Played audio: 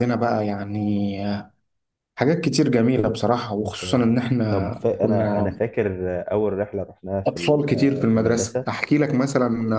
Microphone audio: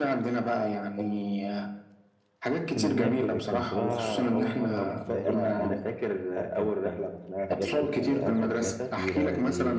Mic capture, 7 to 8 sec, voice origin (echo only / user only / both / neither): both